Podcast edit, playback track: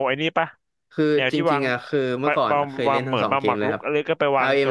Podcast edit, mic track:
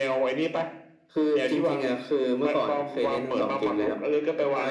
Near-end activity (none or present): none